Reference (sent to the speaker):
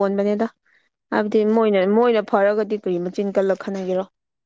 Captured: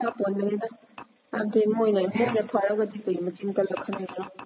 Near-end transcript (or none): ꯑꯦꯁ